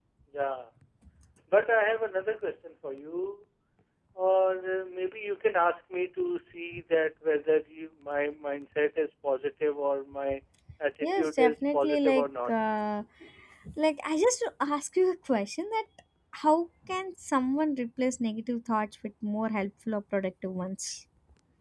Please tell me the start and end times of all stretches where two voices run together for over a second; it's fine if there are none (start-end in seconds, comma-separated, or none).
11.0-12.5